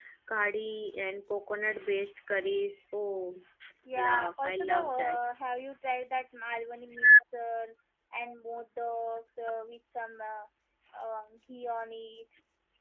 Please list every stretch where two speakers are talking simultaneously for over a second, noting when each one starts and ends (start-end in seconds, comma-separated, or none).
4.0-5.2